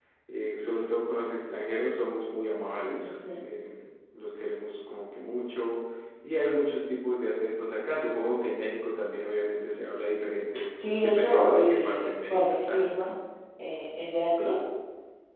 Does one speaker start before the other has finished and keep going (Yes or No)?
Yes